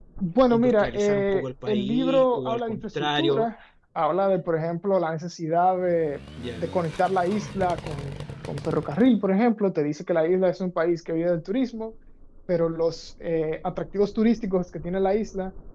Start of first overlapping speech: 0.5 s

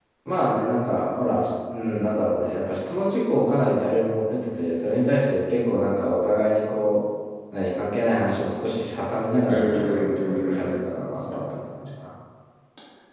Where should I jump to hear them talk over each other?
9.5 s

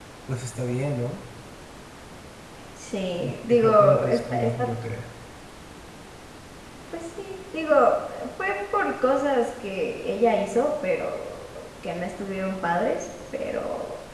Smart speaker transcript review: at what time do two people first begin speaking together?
3.5 s

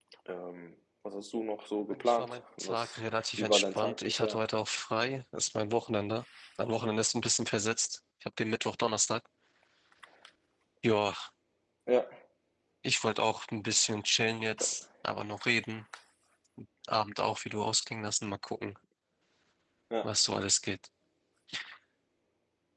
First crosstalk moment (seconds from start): 1.9 s

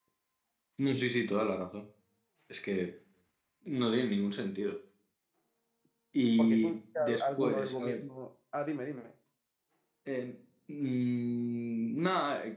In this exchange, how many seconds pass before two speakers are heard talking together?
6.4 s

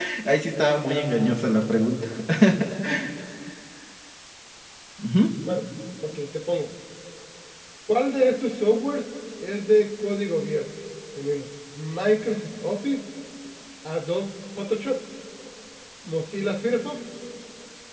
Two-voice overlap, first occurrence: none

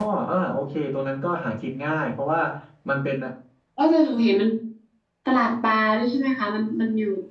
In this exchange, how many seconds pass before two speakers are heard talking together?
none

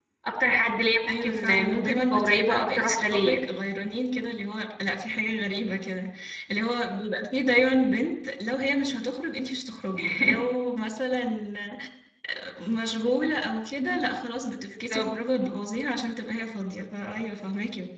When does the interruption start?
1.1 s

